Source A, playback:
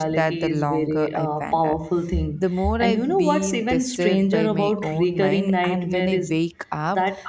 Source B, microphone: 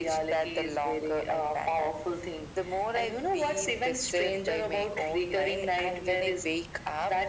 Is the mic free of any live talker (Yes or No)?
Yes